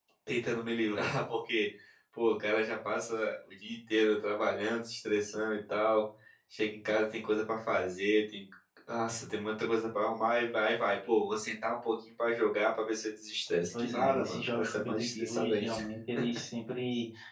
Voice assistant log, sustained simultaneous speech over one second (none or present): present